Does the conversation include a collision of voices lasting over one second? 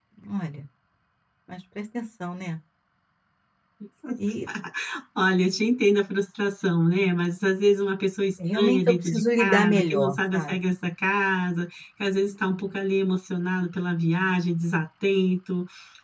Yes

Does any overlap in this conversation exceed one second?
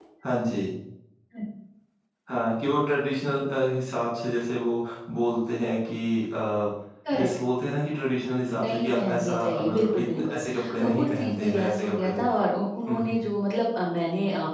Yes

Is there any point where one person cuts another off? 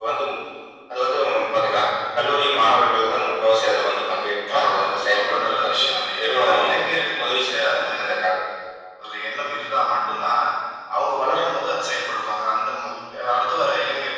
Yes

